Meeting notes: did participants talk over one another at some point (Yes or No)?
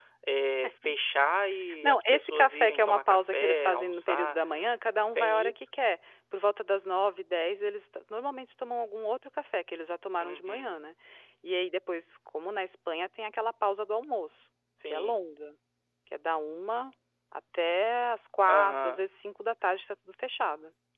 Yes